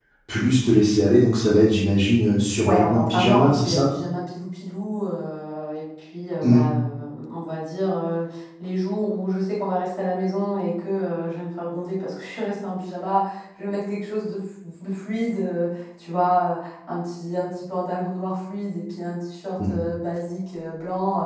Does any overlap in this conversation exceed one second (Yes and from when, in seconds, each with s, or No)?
Yes, from 2.6 s